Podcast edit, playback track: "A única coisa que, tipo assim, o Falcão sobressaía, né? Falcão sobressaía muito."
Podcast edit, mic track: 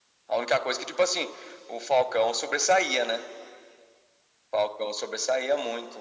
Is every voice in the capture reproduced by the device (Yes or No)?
Yes